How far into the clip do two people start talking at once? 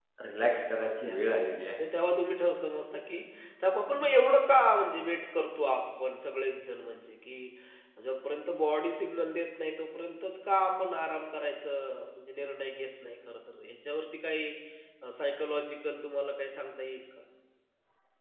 1 s

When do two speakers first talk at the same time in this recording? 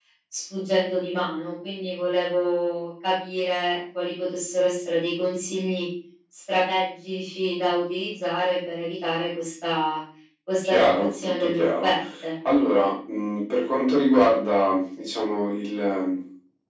11 s

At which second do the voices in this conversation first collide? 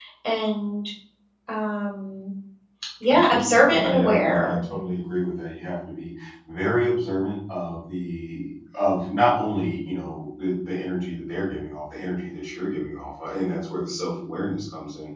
3 s

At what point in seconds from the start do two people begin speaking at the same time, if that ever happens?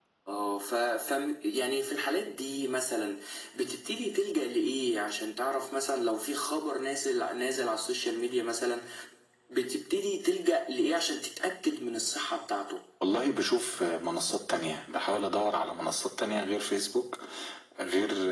none

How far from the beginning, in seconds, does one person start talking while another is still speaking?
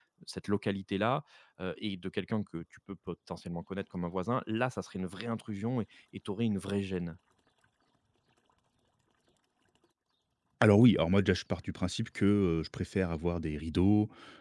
none

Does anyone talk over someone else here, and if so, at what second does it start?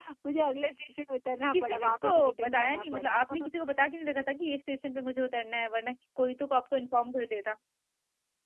2 s

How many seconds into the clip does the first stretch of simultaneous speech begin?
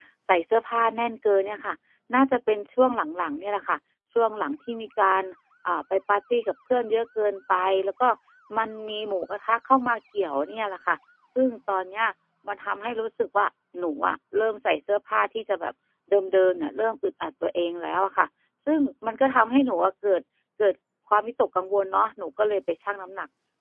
none

